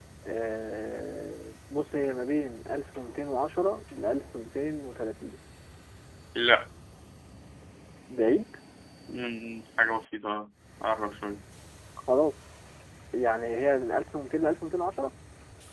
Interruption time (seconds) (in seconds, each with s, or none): none